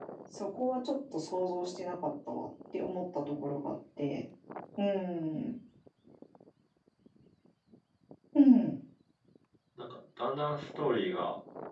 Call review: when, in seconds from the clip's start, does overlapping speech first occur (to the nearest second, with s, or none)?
none